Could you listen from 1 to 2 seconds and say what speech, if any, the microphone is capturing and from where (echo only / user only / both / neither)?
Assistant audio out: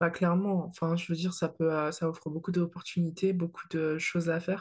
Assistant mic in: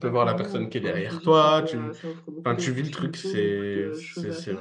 both